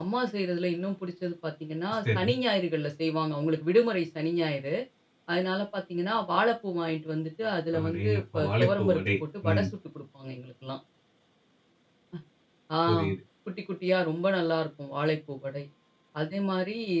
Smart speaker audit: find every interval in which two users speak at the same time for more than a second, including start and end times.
7.8-9.0

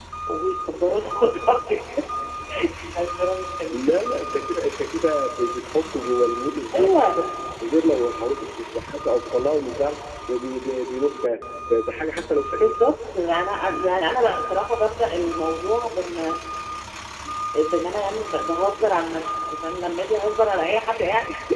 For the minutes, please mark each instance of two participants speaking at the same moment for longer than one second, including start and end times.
none

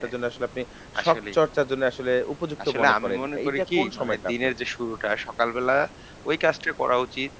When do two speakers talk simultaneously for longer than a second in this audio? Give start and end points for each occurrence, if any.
2.7-4.5

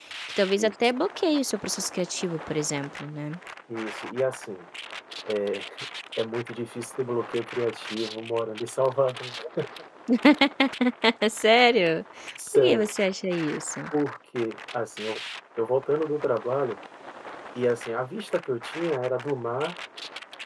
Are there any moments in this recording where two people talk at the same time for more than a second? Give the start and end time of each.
none

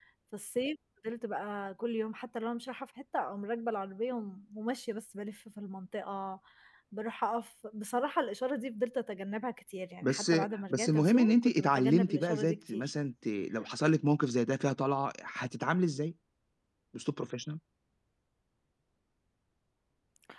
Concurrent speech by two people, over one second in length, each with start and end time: 10.7-12.9

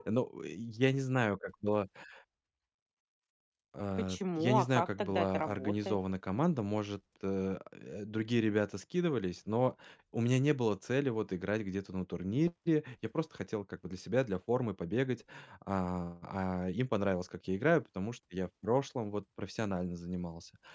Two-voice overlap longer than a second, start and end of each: 4.0-6.0

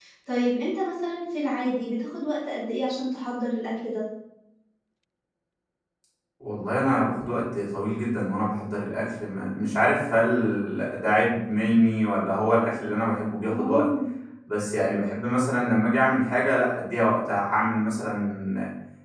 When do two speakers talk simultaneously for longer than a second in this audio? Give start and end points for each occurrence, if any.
none

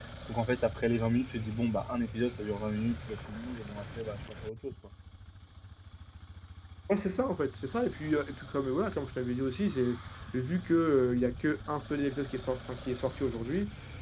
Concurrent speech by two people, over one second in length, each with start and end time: none

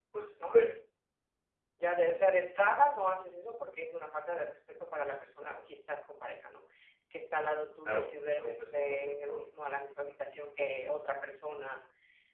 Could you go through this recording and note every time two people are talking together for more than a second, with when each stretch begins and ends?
7.8-9.5

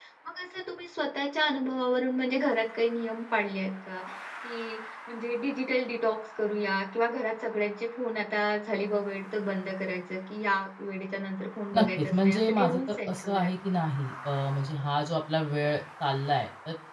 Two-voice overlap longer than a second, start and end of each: 11.8-13.7

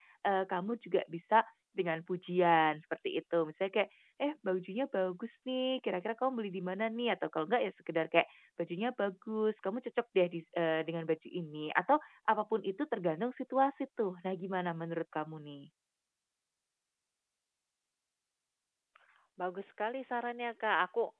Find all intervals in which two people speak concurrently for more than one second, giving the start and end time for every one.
none

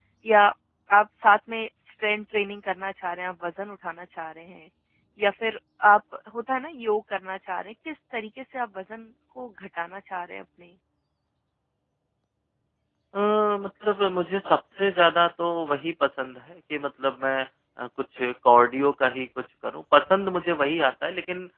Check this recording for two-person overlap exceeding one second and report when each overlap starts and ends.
none

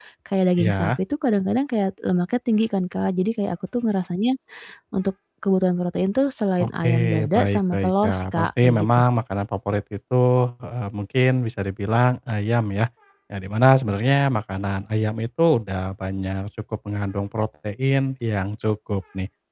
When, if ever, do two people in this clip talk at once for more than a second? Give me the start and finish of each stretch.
6.6-8.9

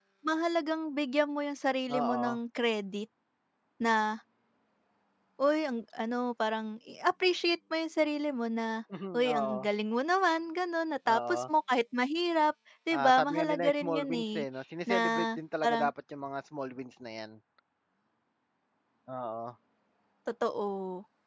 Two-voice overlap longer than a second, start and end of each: 13.0-14.4

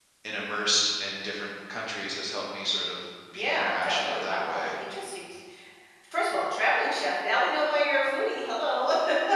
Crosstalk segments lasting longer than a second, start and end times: 3.3-4.7

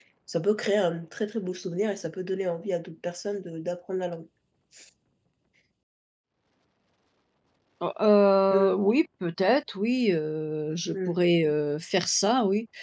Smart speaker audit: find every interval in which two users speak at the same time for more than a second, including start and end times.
none

